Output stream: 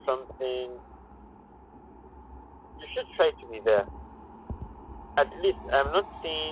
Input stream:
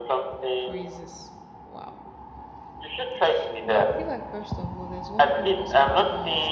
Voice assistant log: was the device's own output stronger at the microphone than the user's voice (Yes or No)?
Yes